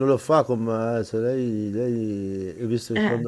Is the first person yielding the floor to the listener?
No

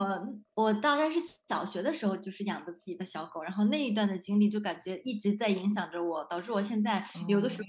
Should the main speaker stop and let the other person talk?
No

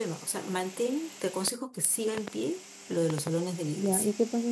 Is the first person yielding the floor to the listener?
Yes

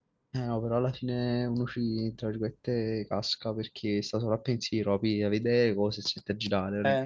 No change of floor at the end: No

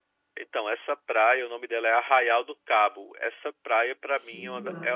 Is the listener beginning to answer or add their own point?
No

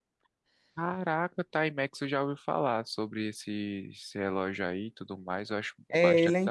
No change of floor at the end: No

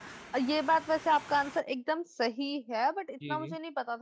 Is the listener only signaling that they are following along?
Yes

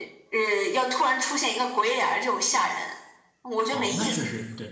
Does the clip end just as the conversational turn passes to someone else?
Yes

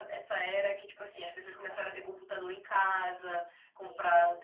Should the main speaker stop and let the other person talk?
No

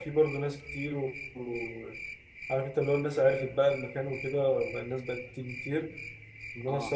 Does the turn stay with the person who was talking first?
Yes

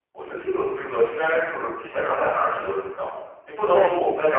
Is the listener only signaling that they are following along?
Yes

